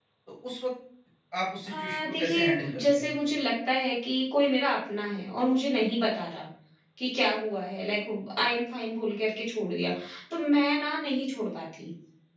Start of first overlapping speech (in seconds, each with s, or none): 1.7 s